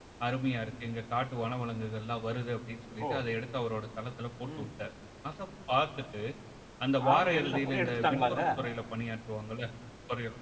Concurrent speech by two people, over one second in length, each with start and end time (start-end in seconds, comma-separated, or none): 7.1-8.4